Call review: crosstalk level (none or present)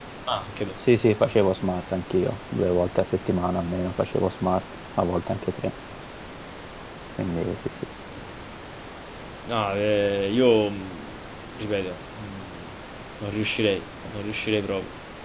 none